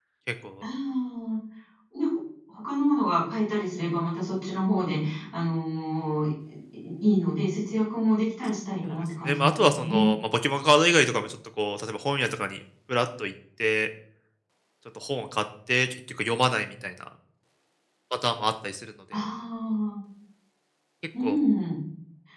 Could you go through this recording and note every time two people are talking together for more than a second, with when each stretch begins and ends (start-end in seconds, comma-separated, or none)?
8.9-10.1